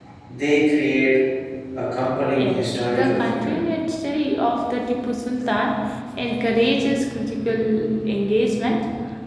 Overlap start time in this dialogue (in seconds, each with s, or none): 2.3 s